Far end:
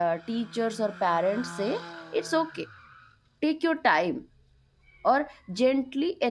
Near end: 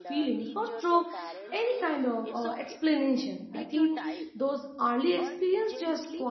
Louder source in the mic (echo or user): user